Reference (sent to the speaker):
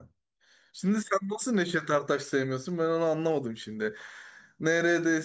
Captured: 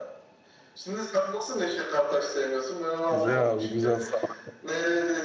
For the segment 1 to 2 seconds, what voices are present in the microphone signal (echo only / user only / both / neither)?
echo only